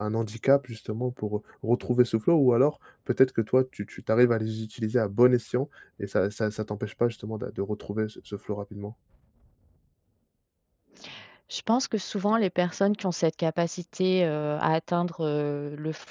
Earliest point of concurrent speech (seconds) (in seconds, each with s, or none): none